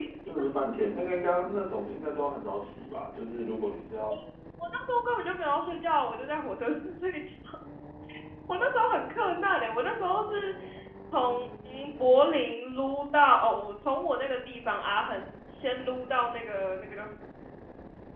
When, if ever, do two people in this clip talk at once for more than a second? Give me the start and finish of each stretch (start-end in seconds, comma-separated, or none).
none